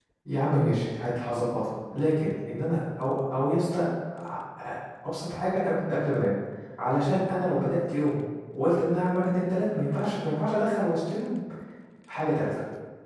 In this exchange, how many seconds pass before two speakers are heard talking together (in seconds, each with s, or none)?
none